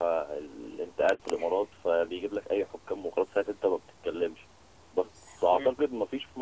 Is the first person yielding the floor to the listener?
No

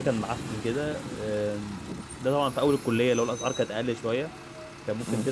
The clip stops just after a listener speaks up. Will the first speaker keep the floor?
Yes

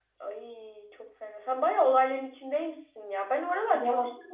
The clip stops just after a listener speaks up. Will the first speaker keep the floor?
Yes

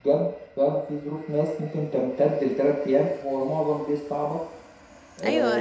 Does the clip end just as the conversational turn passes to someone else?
Yes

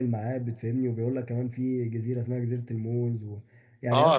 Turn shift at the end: Yes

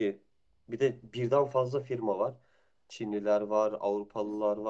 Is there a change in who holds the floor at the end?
No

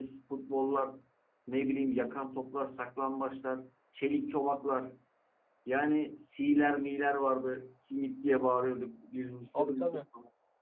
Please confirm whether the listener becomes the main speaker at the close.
No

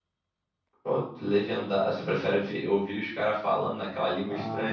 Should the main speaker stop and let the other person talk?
Yes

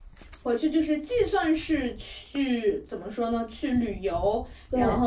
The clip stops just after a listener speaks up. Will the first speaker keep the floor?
Yes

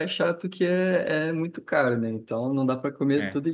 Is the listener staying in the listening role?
Yes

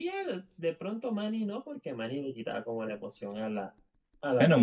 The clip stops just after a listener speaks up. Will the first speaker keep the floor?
No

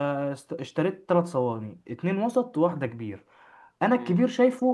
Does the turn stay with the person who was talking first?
Yes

